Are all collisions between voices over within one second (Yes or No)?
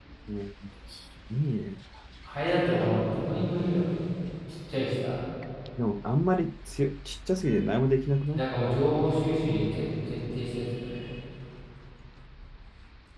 Yes